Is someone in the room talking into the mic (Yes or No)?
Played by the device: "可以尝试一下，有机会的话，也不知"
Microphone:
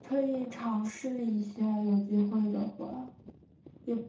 No